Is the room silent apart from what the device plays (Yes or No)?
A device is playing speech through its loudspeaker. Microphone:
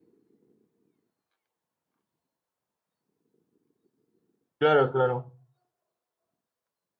No